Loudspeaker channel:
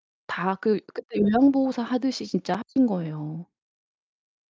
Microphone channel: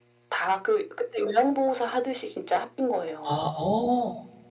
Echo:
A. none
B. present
B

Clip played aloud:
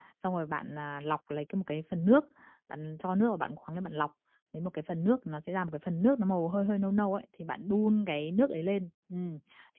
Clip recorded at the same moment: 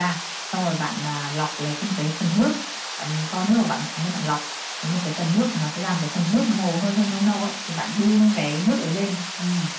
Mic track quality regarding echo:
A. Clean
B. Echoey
B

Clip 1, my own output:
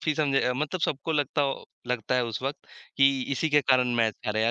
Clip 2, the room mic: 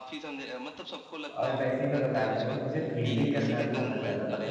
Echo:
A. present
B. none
A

